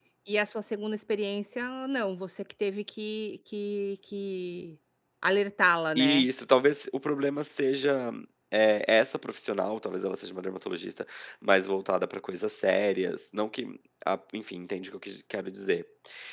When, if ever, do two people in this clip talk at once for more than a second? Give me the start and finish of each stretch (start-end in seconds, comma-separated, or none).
none